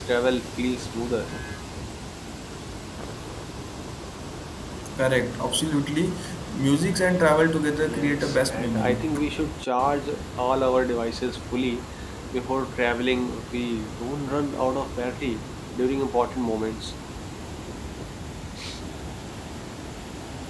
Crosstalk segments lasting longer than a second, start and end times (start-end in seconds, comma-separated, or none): 7.8-9.0